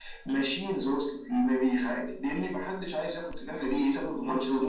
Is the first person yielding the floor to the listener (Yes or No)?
Yes